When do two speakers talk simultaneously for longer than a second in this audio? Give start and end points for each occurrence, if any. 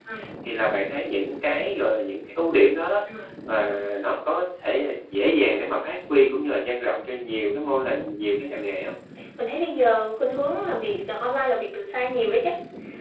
none

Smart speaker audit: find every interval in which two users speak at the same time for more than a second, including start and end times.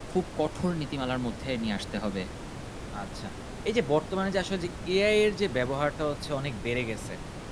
none

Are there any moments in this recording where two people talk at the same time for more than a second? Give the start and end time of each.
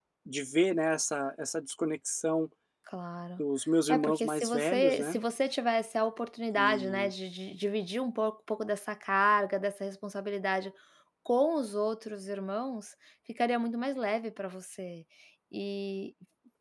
3.9-5.2

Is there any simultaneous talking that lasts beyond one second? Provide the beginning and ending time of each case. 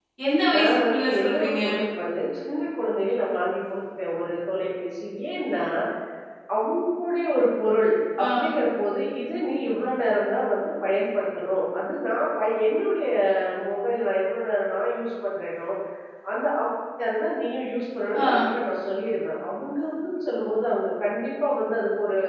0.5-1.7

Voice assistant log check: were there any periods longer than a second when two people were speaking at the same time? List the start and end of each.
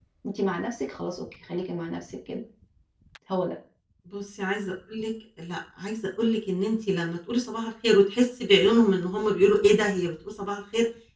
none

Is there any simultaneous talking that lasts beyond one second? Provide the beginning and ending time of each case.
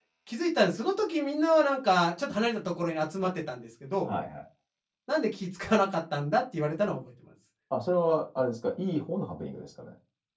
none

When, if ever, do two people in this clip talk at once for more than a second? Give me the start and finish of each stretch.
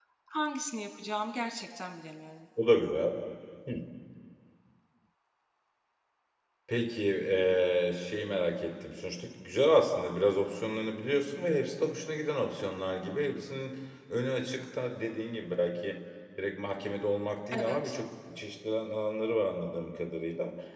none

